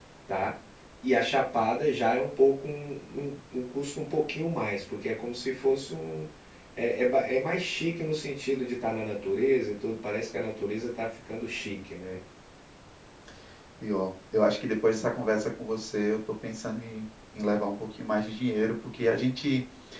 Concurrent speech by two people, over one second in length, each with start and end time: none

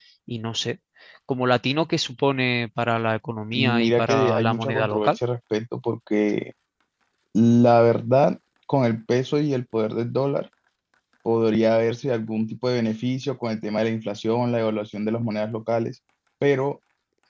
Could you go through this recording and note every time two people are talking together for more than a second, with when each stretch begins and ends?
3.5-5.2

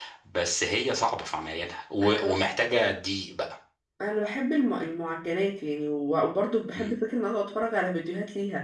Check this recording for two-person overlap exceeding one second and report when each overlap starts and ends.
none

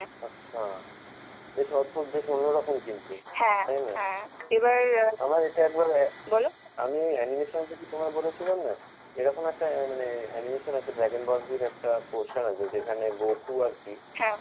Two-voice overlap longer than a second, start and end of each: none

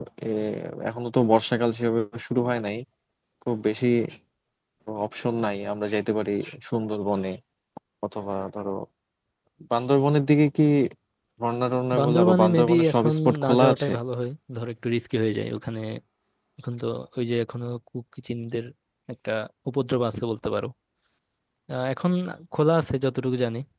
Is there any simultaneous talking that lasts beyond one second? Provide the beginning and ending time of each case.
12.0-13.9

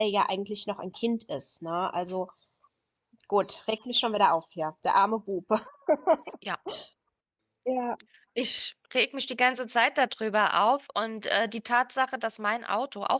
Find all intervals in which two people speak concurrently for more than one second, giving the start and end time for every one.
none

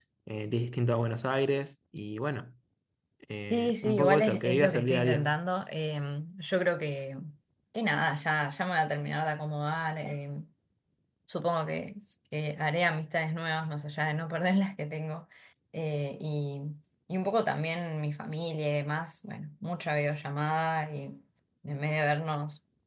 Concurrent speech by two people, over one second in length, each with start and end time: 3.5-5.3

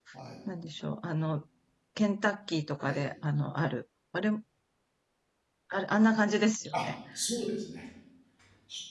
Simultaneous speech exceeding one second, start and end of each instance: none

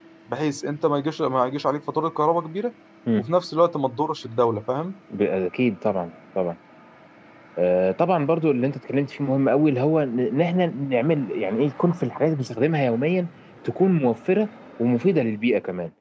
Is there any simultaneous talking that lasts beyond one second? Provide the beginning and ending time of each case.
none

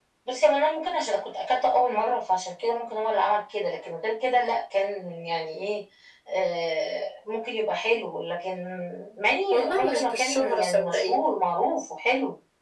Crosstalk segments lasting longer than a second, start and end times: 9.5-11.3

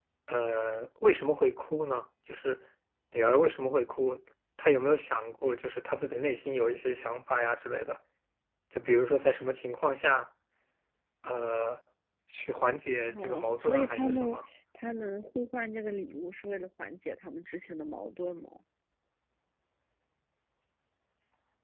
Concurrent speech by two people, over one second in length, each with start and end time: 13.2-14.4

